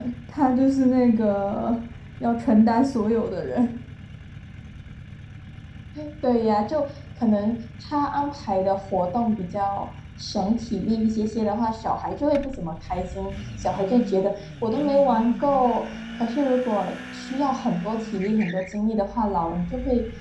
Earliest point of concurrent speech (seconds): none

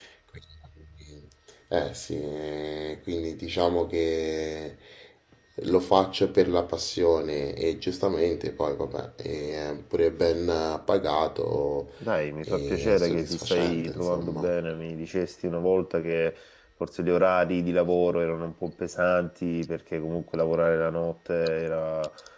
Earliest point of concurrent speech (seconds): 12.4 s

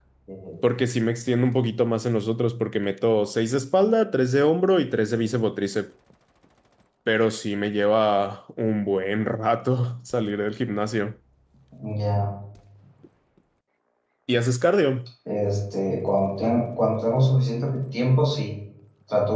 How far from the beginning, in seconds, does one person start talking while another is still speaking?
none

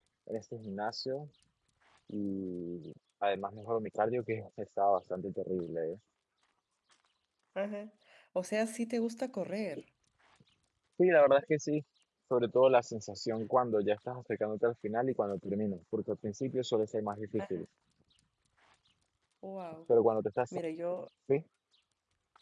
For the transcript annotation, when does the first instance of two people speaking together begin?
none

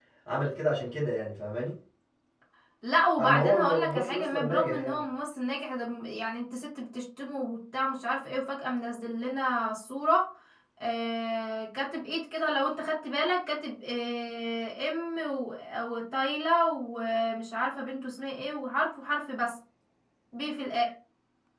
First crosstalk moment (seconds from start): 3.2 s

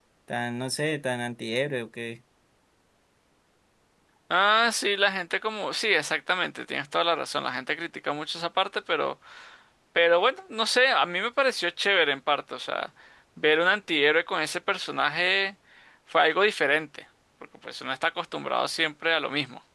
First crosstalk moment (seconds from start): none

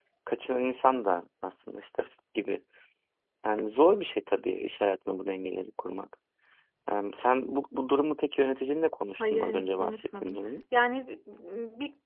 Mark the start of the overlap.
9.2 s

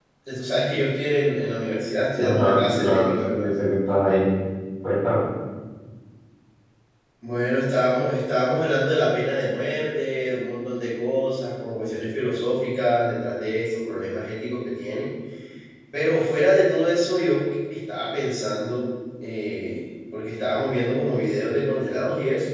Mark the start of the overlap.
2.2 s

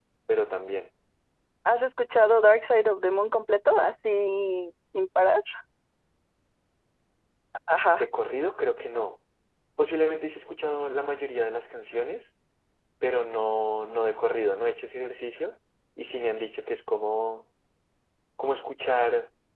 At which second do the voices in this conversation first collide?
none

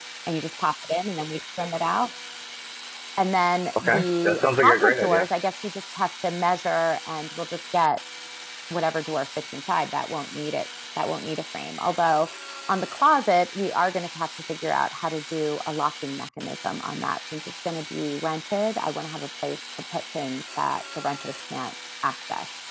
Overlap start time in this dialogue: 3.8 s

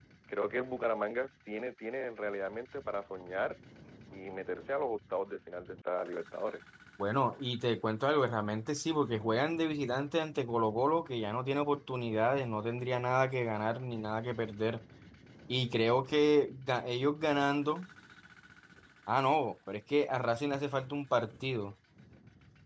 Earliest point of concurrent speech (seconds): none

